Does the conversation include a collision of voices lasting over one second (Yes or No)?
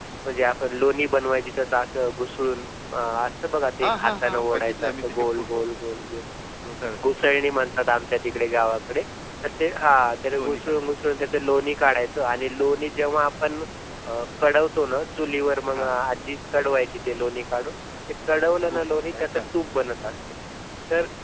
Yes